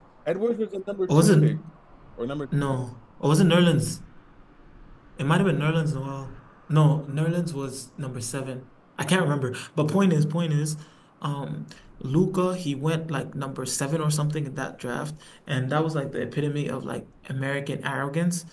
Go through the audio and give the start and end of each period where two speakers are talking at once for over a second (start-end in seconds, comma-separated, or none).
none